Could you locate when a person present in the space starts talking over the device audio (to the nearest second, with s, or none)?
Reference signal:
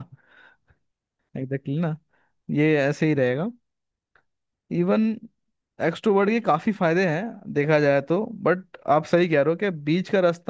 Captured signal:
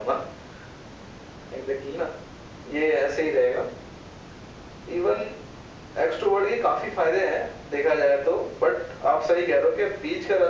none